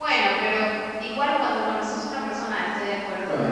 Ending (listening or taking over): taking over